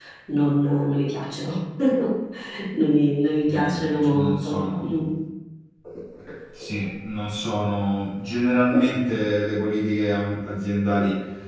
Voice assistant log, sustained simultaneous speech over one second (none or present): present